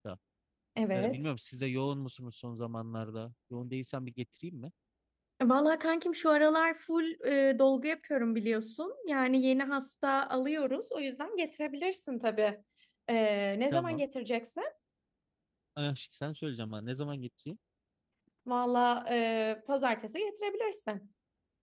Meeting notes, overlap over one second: none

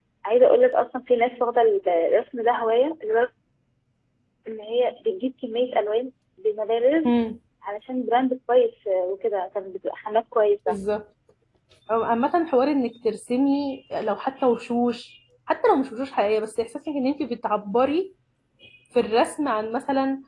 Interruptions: none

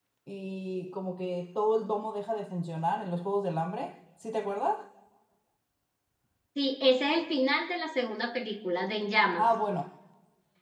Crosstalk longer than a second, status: none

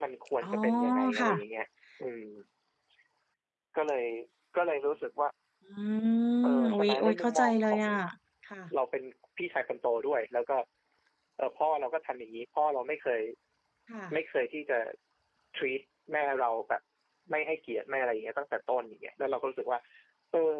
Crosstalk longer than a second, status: present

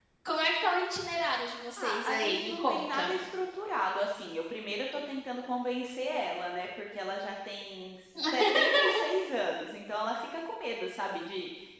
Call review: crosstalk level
present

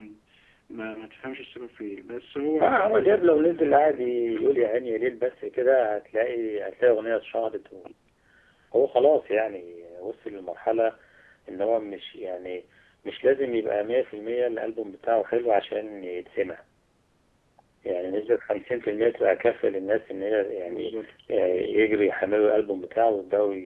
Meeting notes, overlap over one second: present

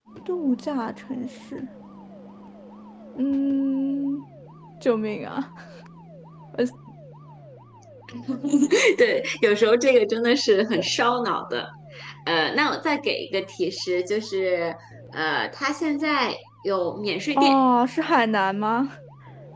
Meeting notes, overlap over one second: none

